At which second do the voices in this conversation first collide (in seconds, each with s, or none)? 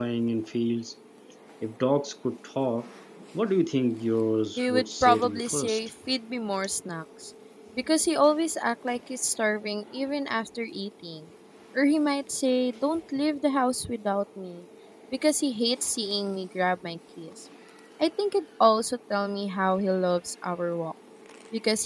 4.6 s